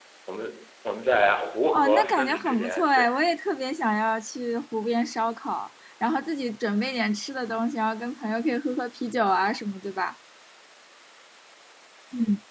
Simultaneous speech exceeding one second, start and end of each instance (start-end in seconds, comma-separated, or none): 1.7-3.0